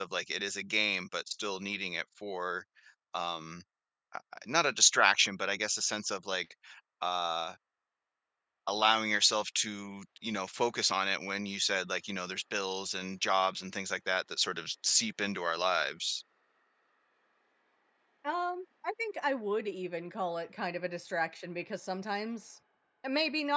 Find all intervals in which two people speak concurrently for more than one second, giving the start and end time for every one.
none

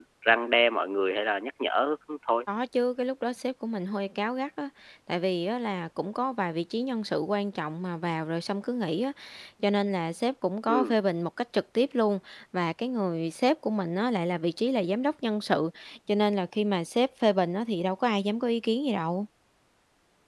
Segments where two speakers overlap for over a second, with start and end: none

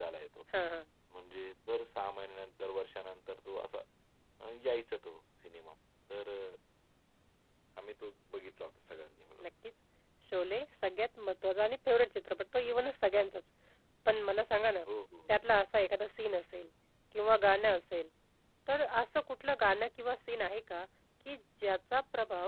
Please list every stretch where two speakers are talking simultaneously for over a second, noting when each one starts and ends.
none

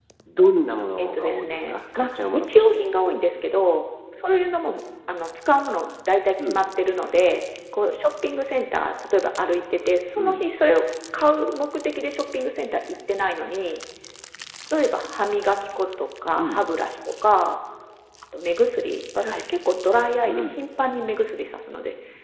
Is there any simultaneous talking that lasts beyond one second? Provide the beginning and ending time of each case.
1.0-2.7

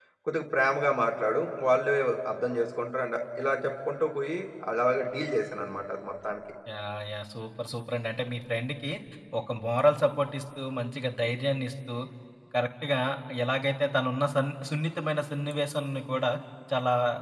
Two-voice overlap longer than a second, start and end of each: none

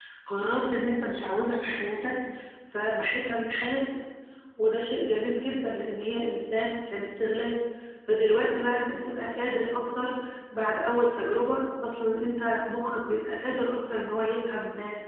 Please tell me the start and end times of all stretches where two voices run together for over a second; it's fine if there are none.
none

